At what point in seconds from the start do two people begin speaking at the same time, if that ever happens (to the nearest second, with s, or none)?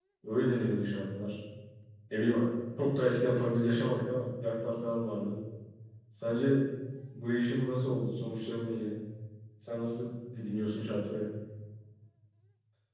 none